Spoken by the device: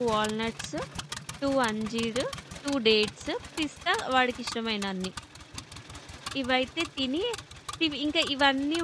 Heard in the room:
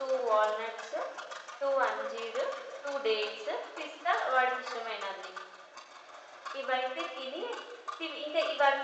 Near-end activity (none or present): none